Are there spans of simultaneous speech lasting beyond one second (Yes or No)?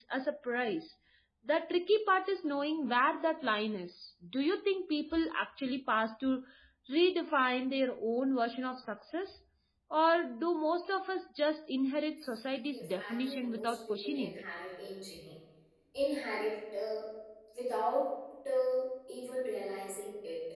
Yes